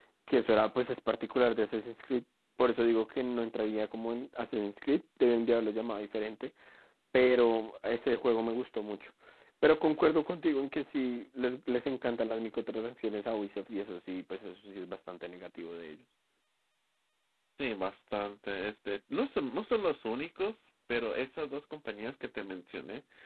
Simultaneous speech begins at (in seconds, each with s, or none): none